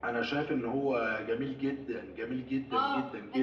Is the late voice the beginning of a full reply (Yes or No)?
Yes